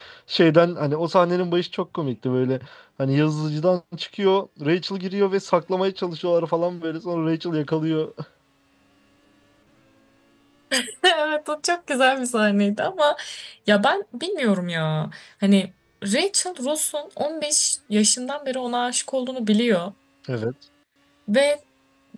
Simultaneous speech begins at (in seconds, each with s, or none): none